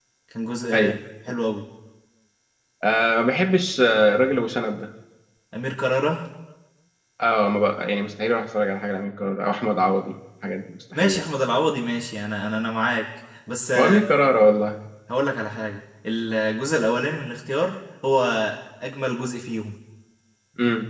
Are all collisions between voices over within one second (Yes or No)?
Yes